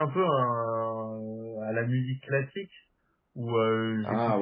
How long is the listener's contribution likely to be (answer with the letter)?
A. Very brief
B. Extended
A